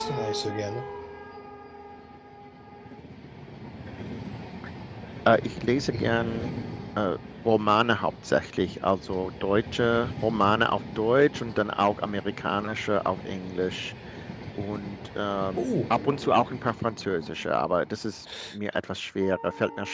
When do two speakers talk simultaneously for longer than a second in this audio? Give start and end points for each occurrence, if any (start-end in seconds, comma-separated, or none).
none